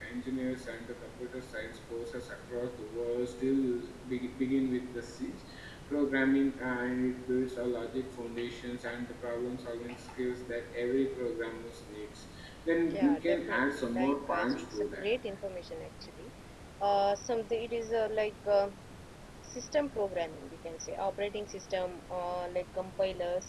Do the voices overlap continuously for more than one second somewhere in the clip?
Yes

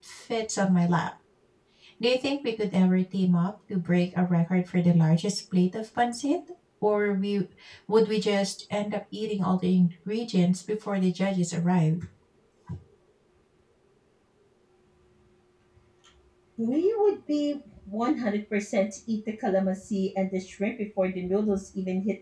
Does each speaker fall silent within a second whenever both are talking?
Yes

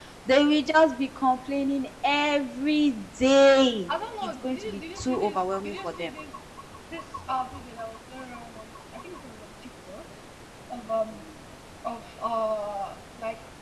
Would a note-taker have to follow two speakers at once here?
Yes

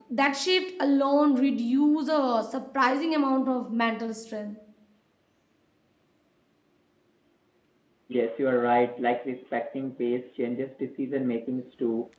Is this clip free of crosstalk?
Yes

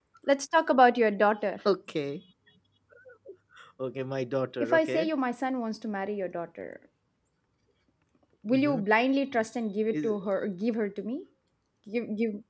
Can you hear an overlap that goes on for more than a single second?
No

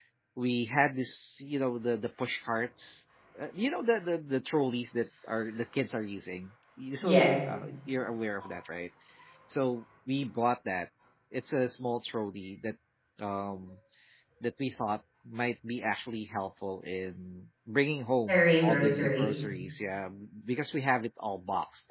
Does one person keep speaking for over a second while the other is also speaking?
Yes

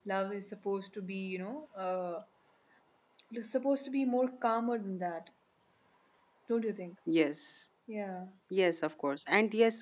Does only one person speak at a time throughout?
Yes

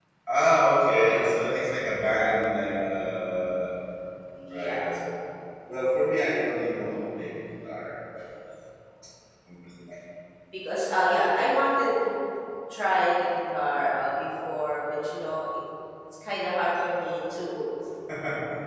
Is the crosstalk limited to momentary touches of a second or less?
Yes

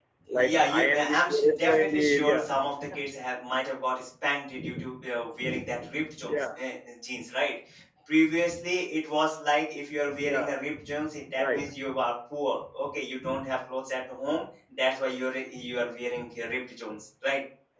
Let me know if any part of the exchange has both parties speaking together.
Yes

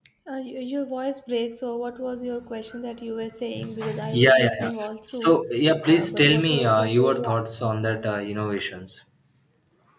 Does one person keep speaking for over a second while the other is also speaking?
Yes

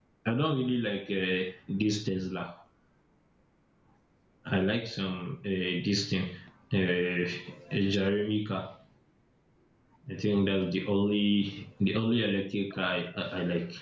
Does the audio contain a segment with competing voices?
No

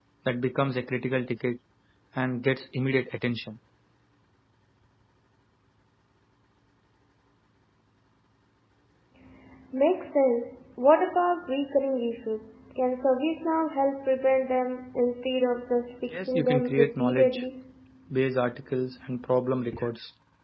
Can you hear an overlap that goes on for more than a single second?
Yes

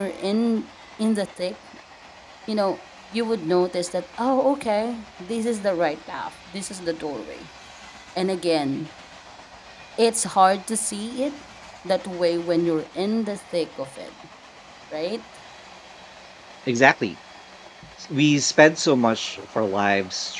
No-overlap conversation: Yes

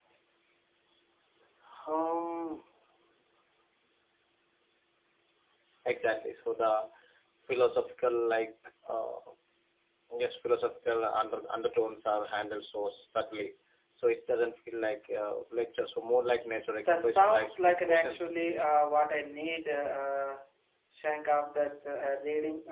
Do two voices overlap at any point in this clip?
Yes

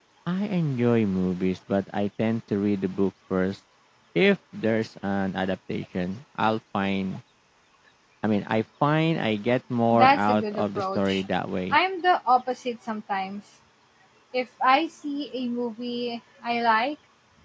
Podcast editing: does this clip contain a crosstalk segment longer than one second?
Yes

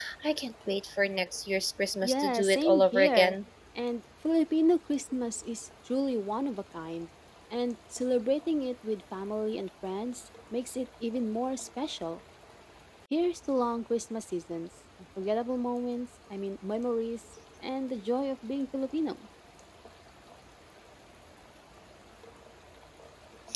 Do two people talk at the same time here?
Yes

